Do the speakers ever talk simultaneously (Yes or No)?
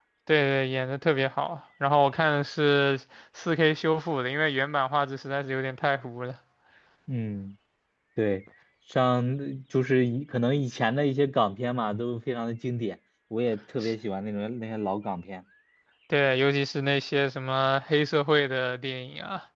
No